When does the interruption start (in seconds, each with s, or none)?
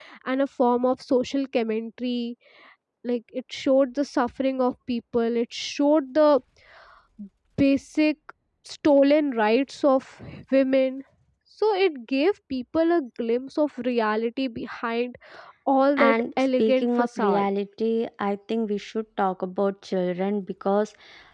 16.0 s